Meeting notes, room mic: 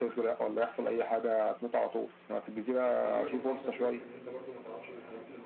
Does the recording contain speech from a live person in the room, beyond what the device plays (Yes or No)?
Yes